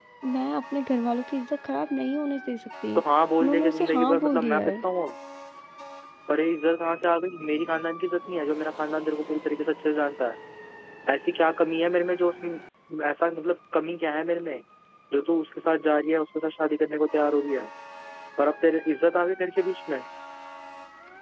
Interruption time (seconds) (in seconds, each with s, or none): 3.4 s